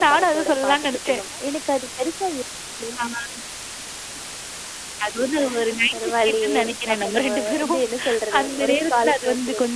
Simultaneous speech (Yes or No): Yes